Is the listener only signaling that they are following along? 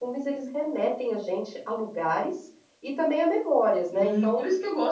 No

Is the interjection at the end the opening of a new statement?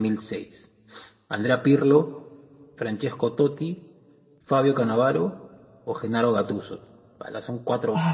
Yes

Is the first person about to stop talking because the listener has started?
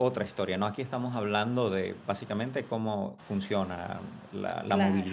No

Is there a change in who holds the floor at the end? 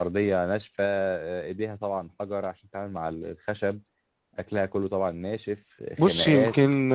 Yes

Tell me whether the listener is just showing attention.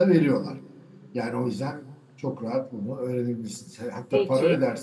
Yes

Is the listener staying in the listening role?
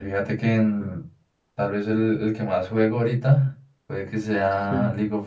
Yes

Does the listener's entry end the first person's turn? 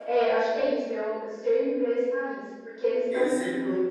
Yes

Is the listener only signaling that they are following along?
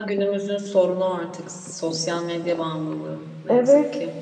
No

